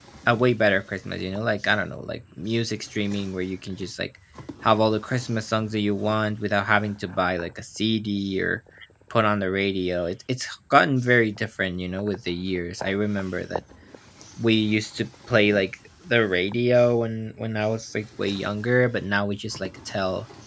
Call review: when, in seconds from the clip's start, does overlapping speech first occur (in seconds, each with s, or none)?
none